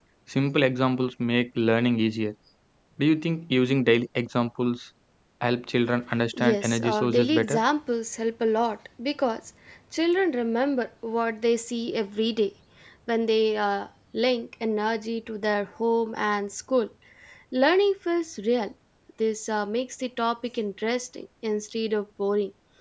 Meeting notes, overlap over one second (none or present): present